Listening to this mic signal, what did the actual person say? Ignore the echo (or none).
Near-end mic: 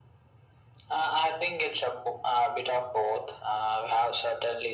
none